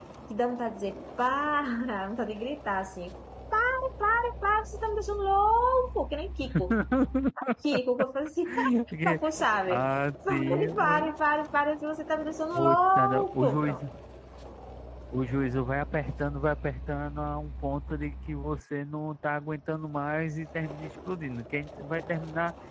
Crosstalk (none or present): present